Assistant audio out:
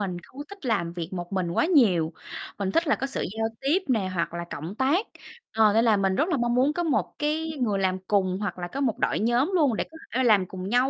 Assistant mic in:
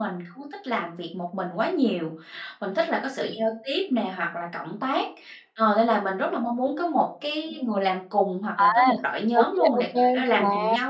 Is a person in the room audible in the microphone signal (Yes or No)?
Yes